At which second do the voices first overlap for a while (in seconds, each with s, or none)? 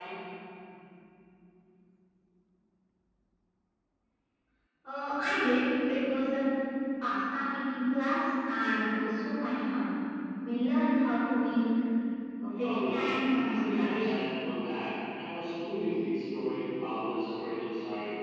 12.6 s